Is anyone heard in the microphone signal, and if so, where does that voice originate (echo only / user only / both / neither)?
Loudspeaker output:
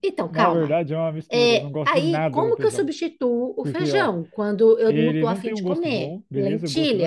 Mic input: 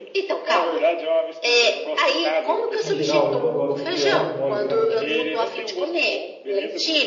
both